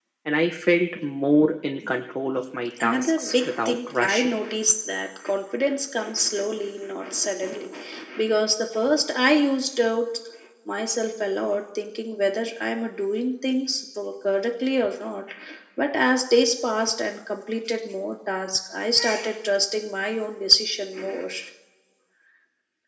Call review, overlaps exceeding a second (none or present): present